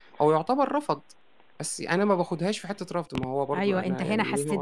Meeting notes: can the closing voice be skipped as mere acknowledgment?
No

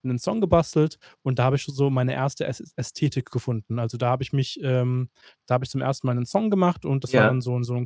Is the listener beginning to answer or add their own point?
No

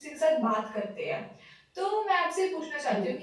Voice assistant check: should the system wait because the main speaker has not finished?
Yes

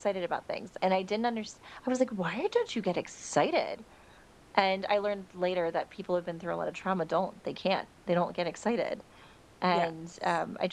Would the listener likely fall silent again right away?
Yes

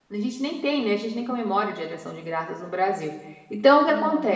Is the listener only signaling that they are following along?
Yes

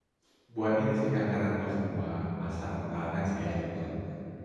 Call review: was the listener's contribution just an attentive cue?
No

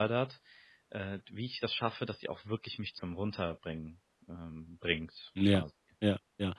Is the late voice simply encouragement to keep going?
No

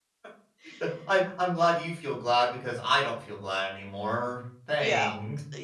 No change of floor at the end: No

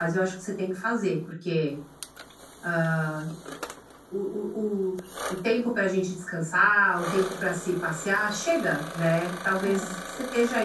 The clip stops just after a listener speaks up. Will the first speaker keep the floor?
Yes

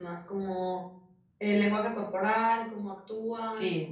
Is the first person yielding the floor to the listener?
No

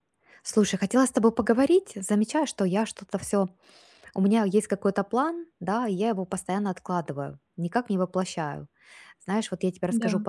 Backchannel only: Yes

